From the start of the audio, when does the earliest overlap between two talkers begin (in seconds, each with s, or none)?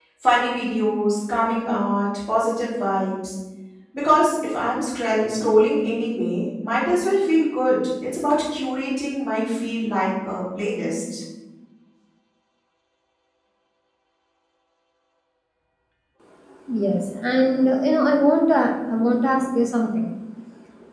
none